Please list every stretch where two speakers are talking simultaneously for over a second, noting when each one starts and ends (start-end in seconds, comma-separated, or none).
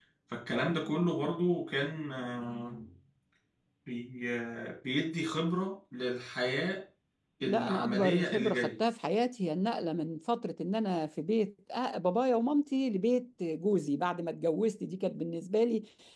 7.4-8.8